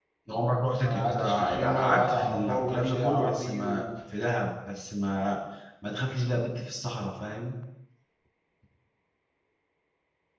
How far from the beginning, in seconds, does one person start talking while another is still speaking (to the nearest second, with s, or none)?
1 s